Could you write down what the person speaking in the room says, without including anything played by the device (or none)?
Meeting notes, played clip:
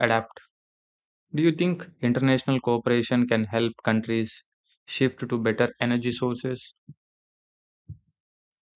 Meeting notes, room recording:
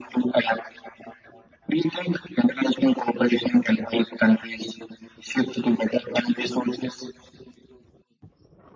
none